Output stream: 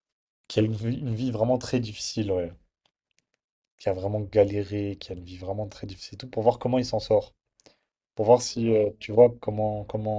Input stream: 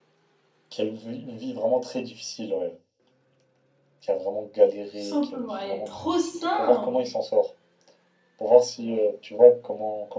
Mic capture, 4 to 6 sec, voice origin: both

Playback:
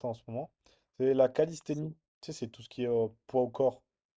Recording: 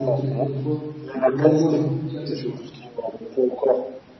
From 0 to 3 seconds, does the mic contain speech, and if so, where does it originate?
both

